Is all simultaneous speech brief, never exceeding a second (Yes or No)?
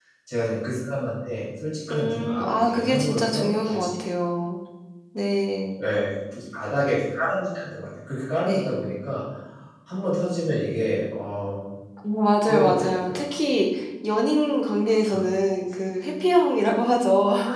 No